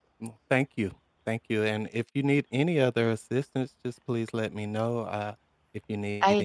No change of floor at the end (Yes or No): No